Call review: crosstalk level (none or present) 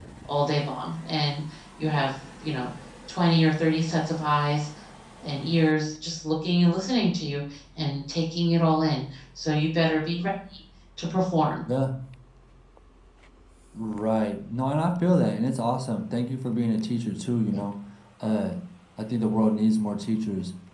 none